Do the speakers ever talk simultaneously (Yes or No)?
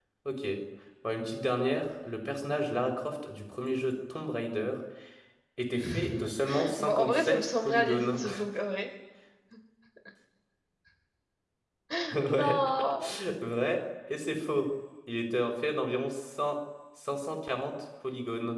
Yes